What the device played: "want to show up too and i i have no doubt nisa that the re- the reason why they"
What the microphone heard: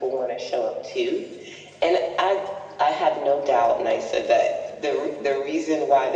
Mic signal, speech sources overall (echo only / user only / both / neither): echo only